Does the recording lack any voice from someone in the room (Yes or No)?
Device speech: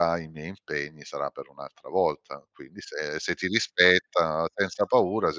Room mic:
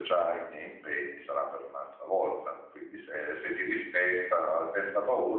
Yes